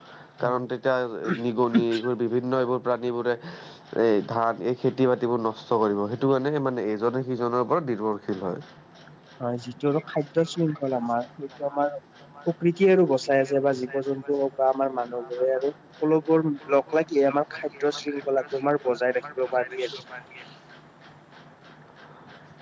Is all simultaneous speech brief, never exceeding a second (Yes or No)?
Yes